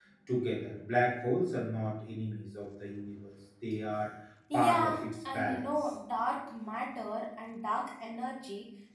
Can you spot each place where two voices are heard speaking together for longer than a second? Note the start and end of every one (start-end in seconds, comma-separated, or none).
4.5-5.9